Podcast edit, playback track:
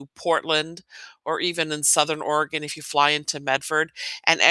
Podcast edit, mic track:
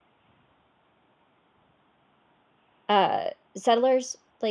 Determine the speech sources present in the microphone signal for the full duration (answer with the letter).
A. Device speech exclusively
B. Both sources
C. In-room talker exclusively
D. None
C